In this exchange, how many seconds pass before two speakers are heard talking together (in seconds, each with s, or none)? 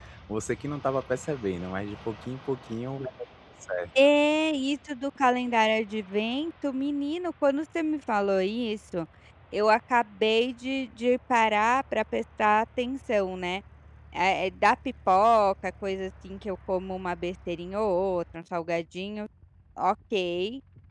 none